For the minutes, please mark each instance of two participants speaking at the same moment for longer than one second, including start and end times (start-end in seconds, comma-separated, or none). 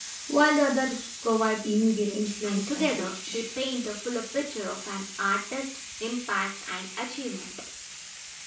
2.0-3.4